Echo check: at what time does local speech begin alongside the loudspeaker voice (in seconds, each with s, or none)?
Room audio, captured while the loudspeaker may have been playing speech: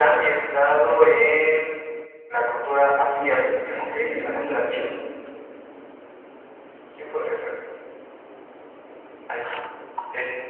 3.0 s